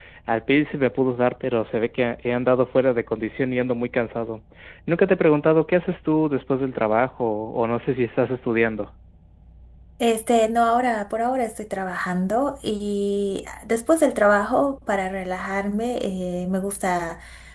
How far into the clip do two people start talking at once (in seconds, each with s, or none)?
none